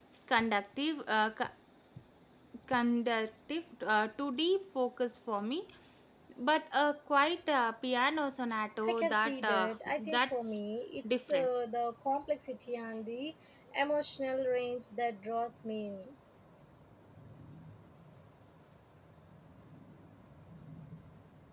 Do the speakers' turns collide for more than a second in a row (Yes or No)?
Yes